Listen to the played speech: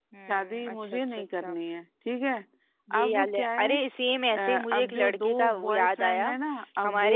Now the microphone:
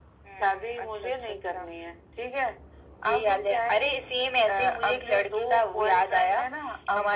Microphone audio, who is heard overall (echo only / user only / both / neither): echo only